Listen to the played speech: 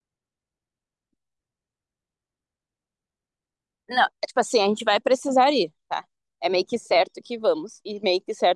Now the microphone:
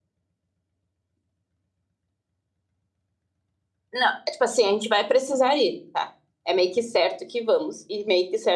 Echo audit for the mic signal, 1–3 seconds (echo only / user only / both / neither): neither